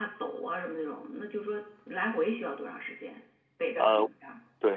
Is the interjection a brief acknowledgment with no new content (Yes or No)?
No